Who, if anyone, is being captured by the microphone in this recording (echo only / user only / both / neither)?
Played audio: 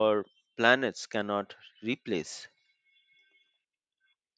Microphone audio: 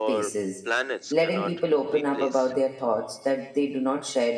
both